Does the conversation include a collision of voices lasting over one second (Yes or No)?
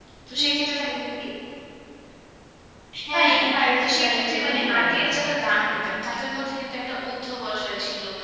Yes